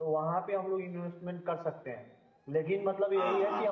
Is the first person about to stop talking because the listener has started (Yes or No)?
No